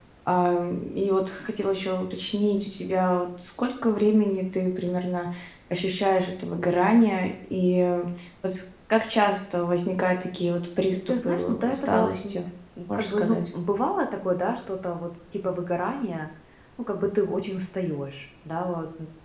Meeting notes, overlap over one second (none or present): present